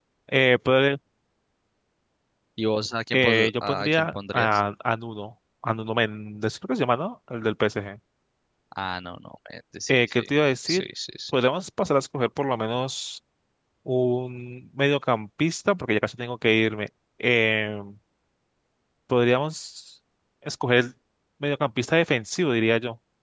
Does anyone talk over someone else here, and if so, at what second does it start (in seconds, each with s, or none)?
3.1 s